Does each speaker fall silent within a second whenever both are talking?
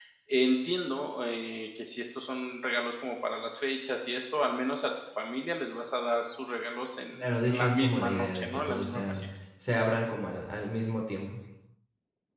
No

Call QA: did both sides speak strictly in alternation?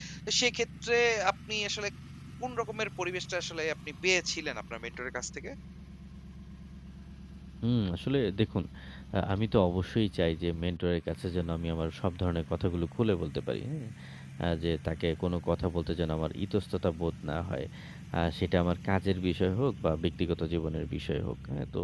Yes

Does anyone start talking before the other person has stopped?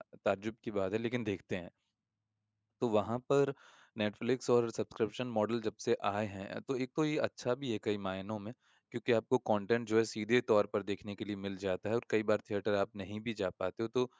No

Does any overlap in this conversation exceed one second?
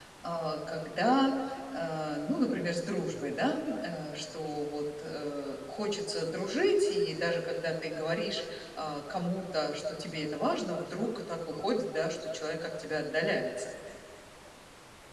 No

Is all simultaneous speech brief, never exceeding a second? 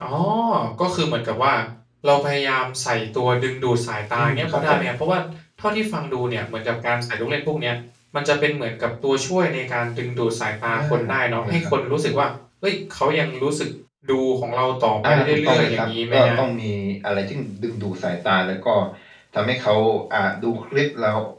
No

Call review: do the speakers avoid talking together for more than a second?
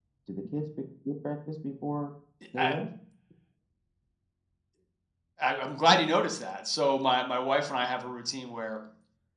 Yes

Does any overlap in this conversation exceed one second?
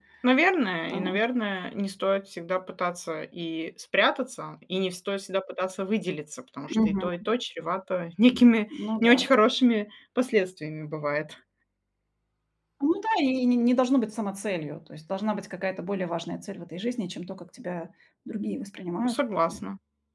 No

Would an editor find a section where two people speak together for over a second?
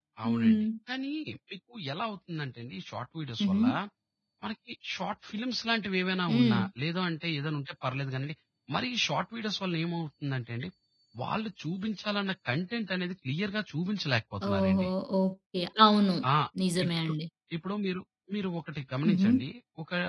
No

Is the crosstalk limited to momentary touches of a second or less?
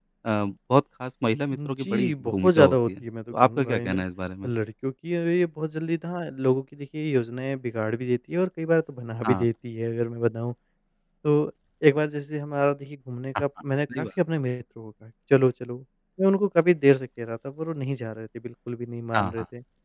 No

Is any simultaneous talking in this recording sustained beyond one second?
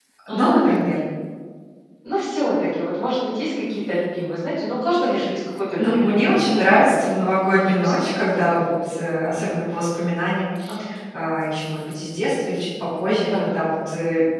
Yes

